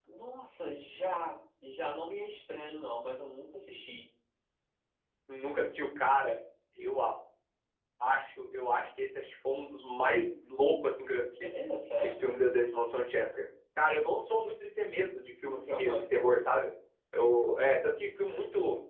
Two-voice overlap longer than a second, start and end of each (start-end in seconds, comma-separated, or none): none